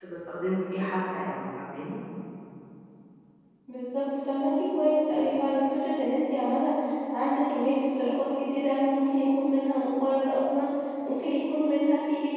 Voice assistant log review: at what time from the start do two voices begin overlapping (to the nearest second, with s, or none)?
none